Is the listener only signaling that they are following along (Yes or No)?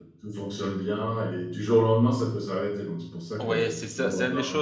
No